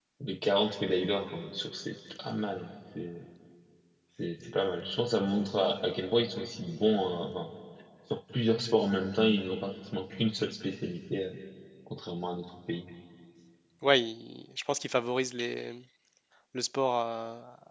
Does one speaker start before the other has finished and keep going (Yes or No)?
No